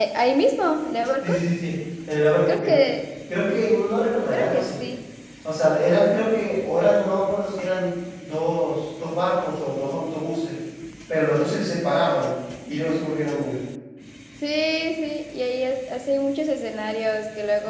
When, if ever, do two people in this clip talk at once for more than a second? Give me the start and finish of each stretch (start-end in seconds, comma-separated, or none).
none